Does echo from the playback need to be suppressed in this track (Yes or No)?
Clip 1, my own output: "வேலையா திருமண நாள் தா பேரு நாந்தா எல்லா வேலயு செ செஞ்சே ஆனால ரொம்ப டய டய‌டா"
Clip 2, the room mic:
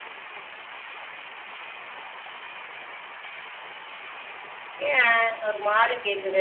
No